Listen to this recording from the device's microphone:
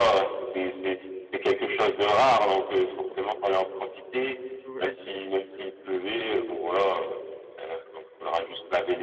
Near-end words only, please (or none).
Ouais.